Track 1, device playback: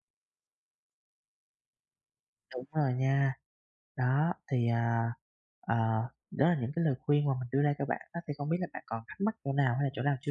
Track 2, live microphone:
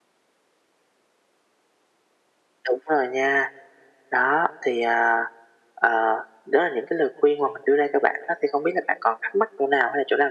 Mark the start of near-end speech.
none

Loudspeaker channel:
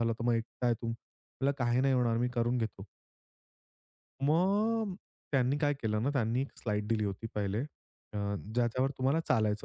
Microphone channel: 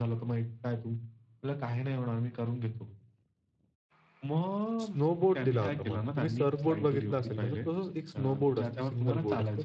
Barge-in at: 4.8 s

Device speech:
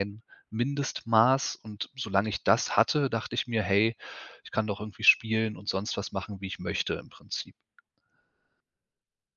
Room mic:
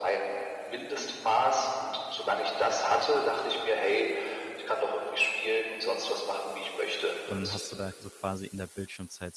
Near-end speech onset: 7.2 s

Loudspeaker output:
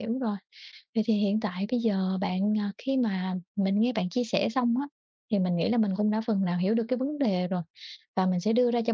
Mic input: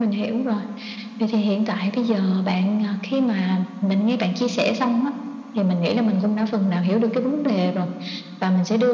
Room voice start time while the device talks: none

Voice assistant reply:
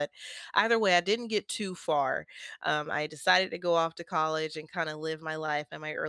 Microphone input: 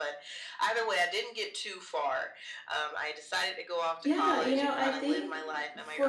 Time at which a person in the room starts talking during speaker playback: 4.0 s

